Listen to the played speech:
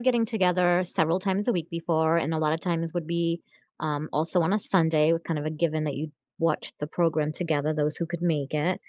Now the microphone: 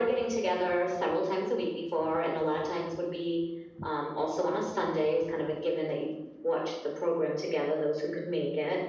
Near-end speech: none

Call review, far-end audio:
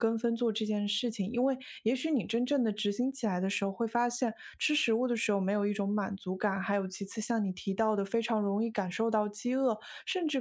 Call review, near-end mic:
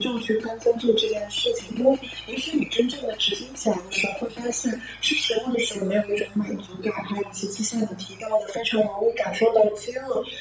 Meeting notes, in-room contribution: none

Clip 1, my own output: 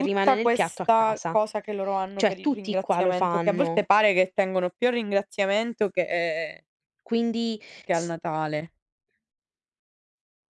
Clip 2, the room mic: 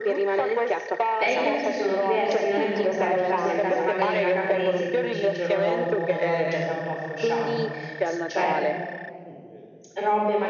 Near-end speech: present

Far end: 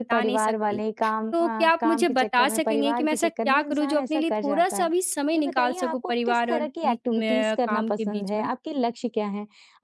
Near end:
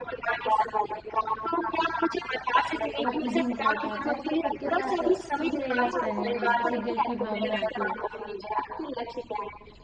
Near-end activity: present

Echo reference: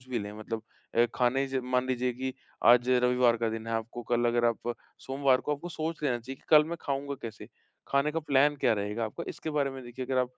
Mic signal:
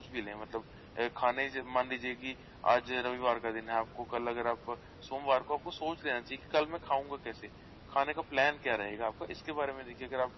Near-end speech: none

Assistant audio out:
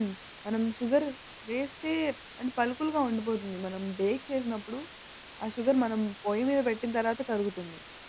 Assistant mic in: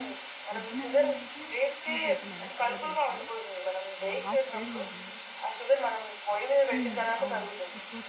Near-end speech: present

